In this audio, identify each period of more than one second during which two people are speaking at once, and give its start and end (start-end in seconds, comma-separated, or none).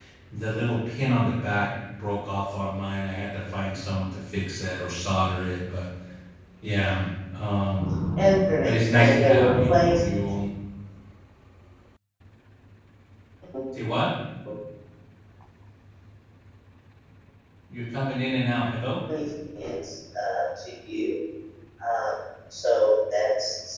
8.6-9.9